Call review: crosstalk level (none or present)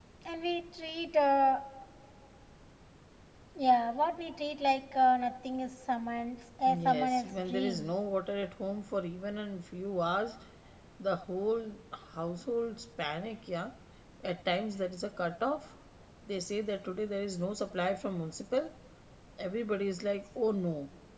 present